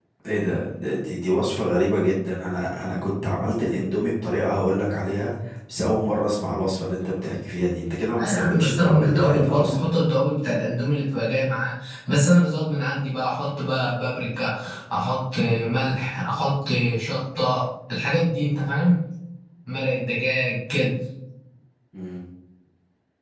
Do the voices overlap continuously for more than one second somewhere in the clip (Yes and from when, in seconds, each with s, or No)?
Yes, from 8.2 s